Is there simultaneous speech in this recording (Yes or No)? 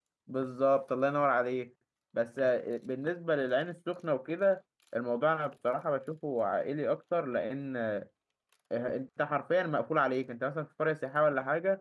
No